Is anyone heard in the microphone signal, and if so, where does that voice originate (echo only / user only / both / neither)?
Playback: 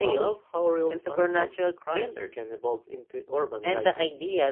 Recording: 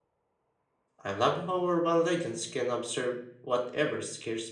user only